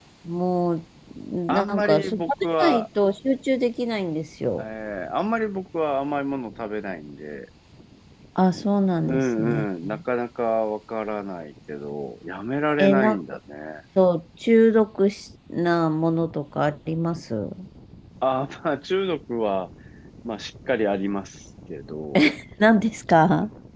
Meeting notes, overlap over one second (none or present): present